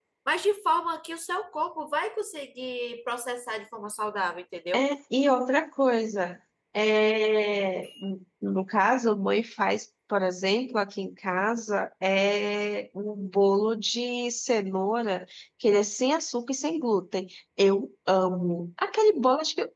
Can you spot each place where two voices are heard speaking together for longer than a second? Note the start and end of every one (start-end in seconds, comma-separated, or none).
none